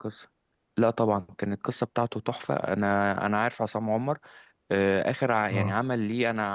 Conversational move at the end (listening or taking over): listening